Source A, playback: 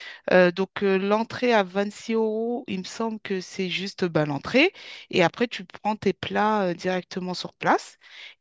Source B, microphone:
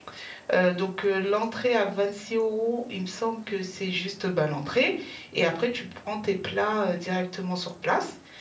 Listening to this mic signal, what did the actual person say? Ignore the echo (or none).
none